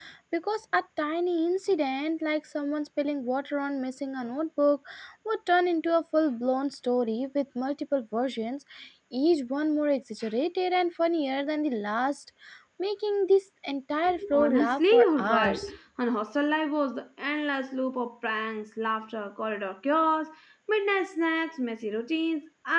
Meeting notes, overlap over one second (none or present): present